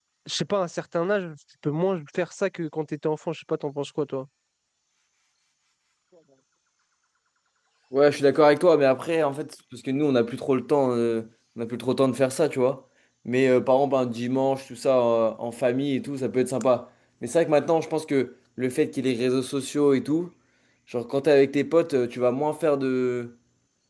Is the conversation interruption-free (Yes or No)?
Yes